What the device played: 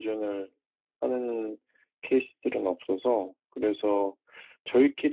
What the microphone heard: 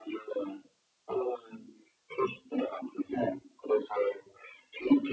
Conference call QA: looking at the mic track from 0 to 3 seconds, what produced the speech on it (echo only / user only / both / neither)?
echo only